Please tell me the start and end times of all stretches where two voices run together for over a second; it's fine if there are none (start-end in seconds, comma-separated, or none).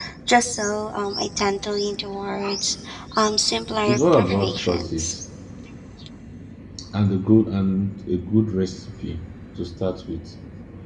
3.9-5.2